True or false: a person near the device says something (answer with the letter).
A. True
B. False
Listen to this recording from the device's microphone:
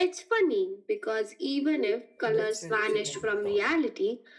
A